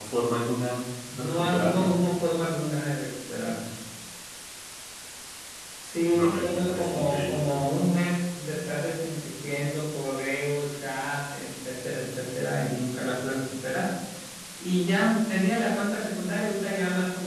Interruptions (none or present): present